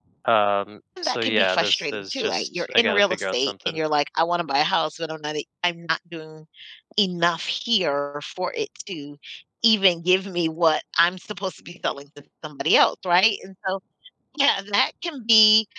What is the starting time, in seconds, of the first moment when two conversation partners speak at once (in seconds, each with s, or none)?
1.0 s